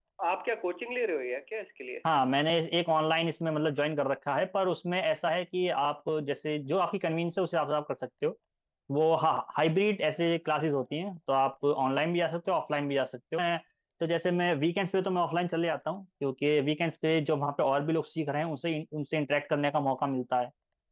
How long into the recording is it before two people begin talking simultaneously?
none

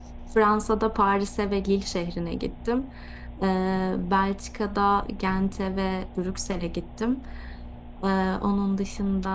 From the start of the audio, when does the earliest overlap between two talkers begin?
none

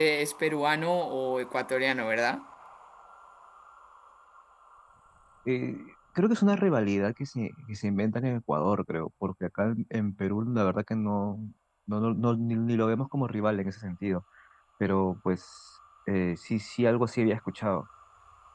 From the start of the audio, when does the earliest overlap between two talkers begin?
none

